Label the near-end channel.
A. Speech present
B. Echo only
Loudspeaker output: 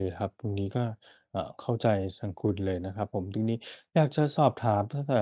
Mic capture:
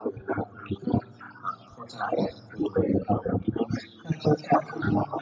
B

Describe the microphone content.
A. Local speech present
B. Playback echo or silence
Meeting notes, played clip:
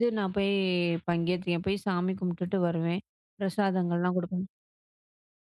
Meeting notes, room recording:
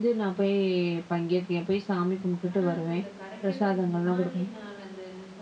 A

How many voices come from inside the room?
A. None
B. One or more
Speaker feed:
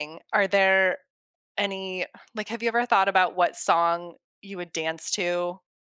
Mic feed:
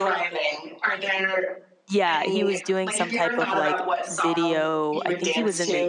B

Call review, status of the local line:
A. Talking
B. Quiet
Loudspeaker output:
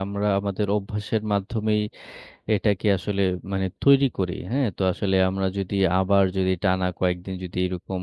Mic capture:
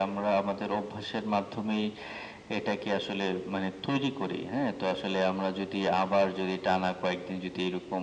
B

